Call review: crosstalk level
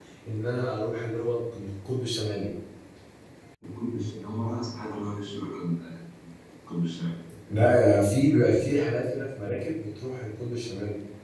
none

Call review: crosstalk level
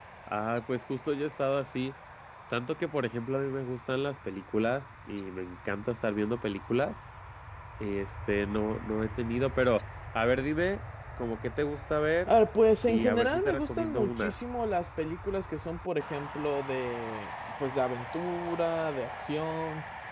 present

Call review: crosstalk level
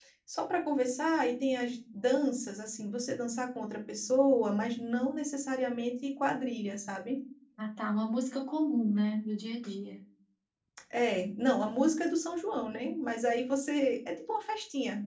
none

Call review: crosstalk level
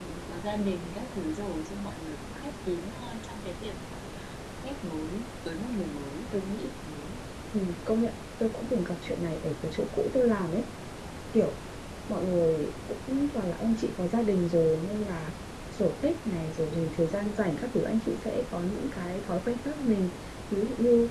none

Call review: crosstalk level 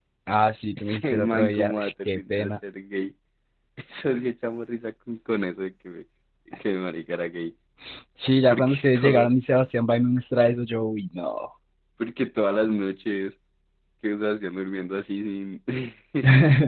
present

